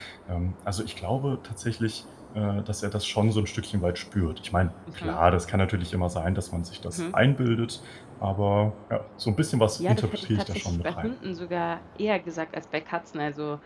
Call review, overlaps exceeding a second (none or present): present